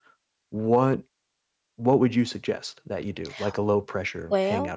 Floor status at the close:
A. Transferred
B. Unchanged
A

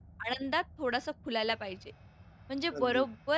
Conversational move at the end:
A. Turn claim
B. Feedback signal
B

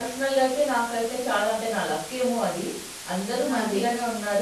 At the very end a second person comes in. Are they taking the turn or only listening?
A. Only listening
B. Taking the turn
A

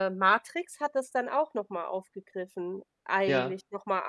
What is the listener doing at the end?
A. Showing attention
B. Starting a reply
A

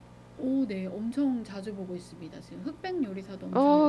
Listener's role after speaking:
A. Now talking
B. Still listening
A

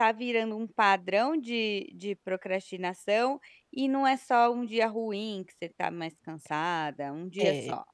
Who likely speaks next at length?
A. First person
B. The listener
B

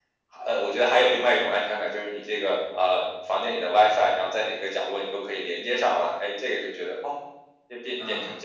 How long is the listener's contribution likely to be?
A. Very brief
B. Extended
B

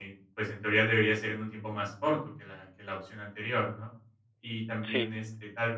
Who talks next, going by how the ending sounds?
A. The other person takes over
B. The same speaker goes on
B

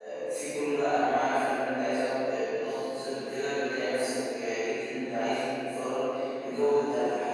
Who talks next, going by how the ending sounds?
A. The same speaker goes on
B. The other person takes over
A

